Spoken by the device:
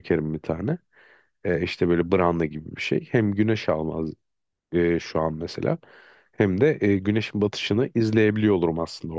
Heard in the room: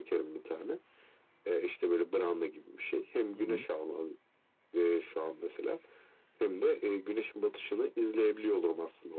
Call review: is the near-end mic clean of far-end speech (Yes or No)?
No